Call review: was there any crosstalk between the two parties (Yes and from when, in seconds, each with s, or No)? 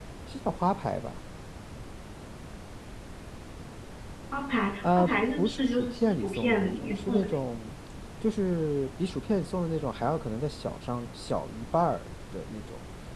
Yes, from 5.0 s